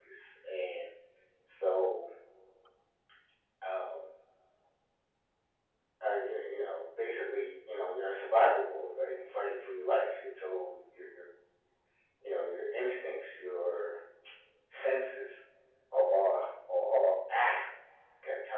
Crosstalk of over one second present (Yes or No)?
No